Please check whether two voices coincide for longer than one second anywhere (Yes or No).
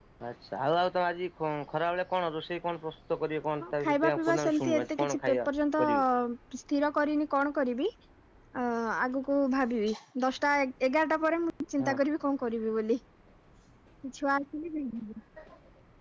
Yes